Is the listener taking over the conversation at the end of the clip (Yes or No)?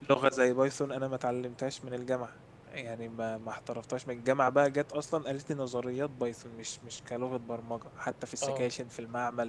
No